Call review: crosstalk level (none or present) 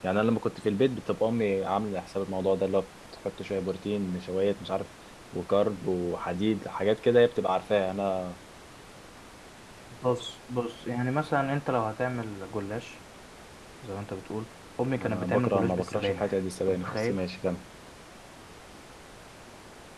present